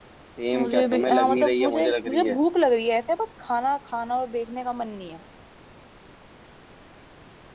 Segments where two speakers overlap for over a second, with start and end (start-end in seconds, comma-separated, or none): 0.6-2.4